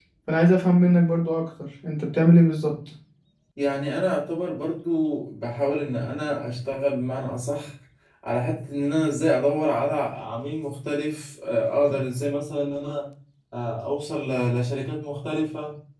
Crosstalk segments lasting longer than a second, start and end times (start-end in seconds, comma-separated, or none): none